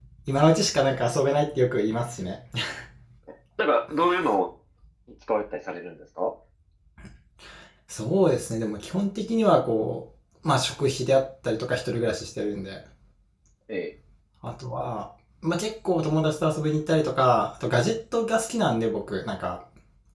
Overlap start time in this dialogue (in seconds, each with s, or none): none